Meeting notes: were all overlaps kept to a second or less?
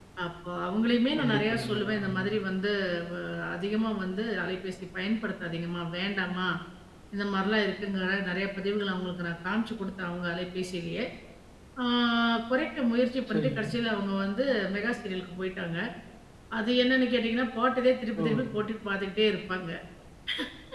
No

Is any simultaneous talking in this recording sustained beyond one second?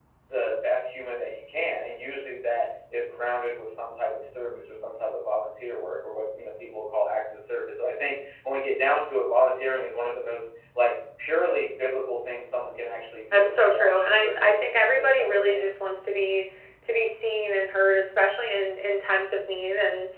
Yes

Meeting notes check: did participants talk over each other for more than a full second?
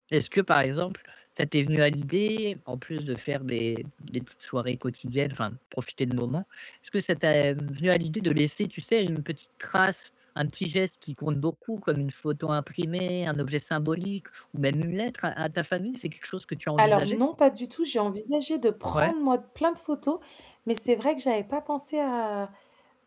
No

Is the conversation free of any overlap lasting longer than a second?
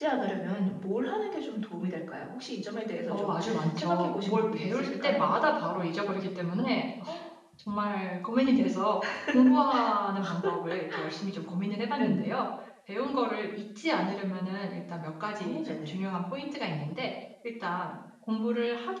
No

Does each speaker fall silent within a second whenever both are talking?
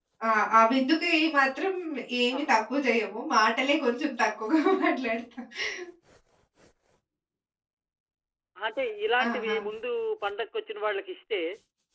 Yes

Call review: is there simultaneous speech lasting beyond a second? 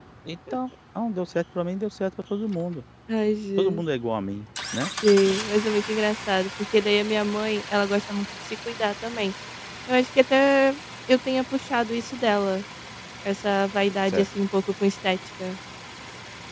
No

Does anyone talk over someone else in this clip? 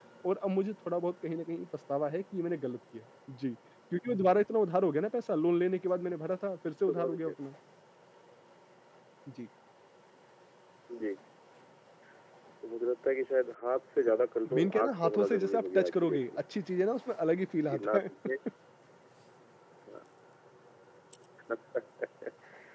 Yes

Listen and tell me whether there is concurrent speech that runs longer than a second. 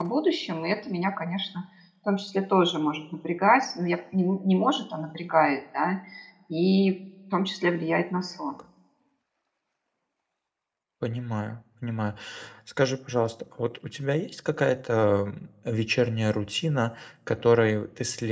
No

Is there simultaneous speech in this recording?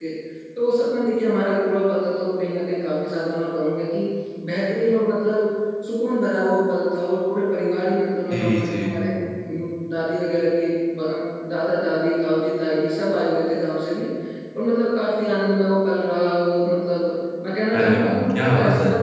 Yes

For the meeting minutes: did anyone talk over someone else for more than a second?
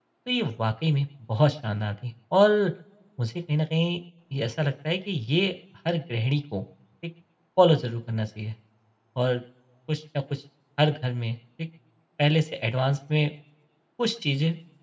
No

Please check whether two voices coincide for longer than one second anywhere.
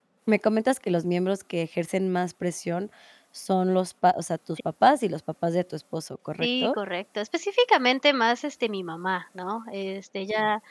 No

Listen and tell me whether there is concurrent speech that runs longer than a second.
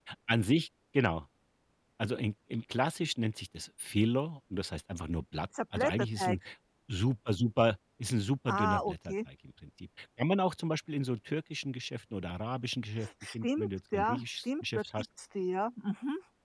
Yes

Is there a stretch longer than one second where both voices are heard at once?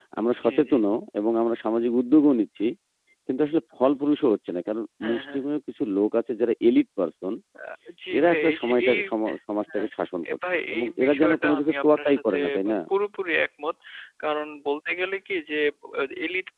Yes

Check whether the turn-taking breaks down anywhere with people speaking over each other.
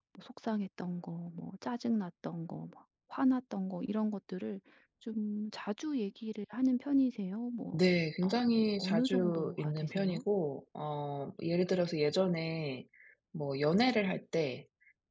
Yes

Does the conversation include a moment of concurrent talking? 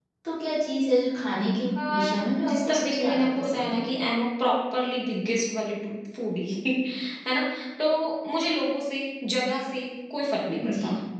Yes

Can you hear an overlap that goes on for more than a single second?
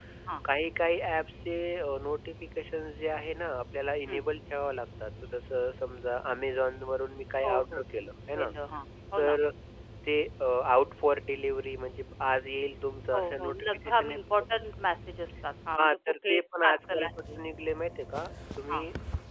Yes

